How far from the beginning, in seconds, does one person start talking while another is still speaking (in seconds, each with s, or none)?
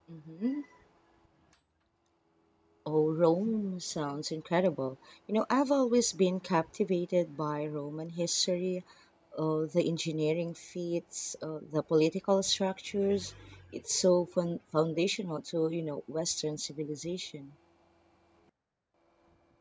none